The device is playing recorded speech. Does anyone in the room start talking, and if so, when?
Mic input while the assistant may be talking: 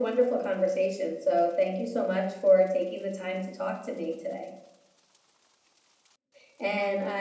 none

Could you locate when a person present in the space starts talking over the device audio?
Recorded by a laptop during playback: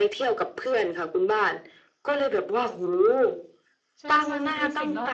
4.0 s

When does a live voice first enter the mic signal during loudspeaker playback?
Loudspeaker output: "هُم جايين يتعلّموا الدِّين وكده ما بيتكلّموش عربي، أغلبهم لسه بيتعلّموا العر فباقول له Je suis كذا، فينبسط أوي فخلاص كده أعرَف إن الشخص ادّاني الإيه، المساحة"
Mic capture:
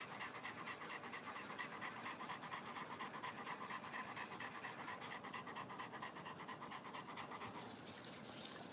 none

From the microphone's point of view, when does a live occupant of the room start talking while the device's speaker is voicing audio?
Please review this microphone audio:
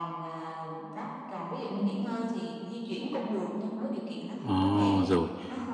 4.4 s

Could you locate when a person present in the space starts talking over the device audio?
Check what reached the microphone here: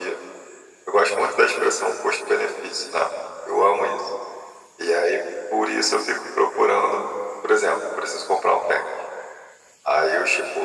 none

